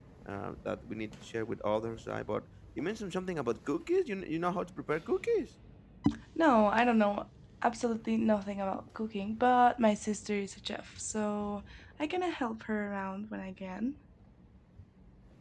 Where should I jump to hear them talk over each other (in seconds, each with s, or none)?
none